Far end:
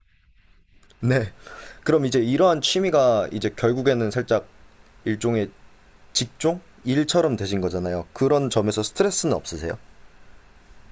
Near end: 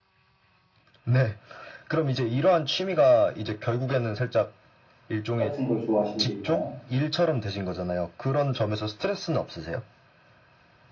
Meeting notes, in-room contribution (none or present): present